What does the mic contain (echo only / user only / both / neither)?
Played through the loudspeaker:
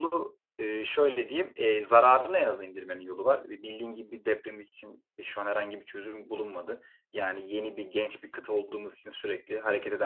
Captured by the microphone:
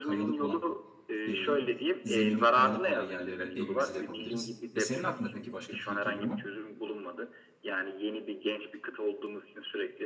both